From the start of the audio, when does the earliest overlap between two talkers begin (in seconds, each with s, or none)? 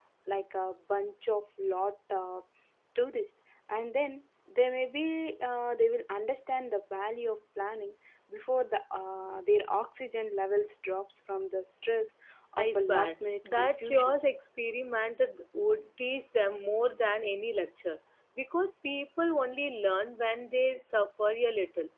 12.6 s